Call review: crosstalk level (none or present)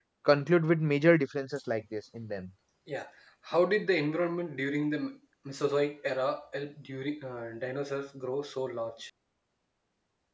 none